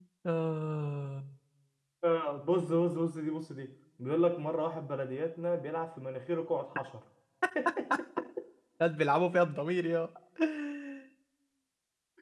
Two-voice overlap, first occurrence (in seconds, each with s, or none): none